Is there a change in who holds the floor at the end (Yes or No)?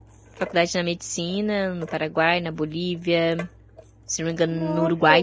No